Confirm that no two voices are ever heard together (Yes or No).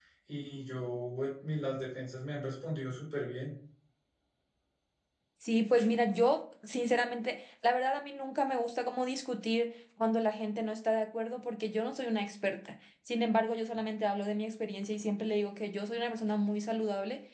Yes